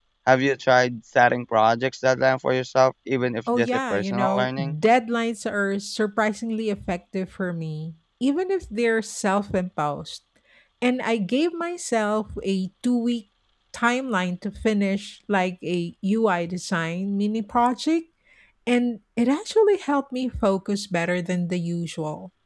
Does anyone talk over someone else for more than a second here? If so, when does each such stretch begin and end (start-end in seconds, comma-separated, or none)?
3.5-4.7